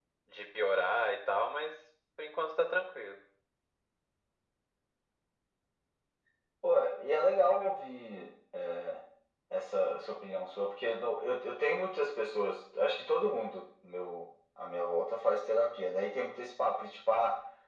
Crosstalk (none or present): none